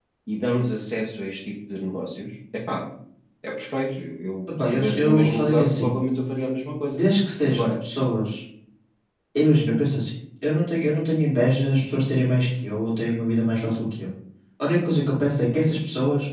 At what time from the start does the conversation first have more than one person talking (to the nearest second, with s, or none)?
5 s